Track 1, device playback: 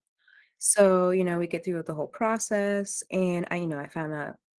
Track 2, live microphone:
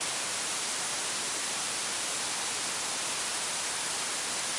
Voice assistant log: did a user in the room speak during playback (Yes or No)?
No